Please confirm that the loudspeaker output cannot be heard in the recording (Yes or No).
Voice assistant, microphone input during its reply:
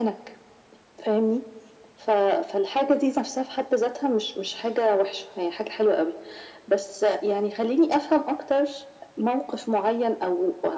No